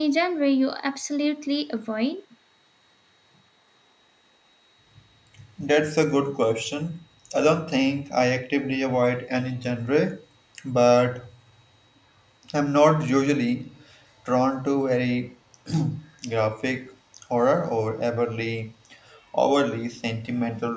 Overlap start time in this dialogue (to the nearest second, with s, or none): none